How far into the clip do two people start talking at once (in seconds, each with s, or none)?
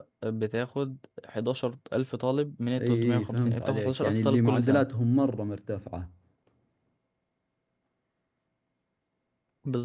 2.8 s